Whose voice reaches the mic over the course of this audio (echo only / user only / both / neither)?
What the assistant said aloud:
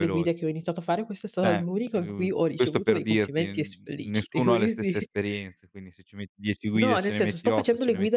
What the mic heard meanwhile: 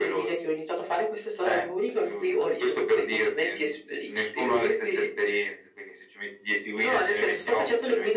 echo only